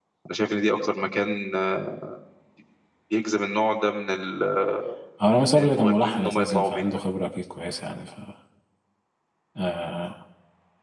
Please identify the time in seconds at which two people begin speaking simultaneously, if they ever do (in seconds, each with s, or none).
5.5 s